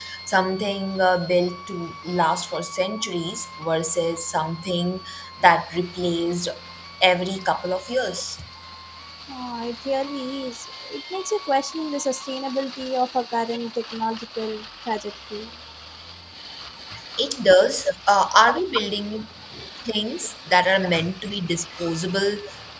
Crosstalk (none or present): none